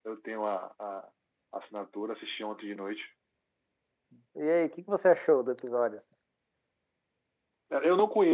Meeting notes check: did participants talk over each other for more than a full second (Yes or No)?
No